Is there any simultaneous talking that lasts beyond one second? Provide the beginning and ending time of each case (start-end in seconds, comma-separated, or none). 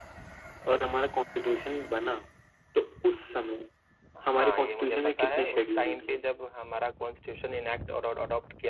4.3-6.2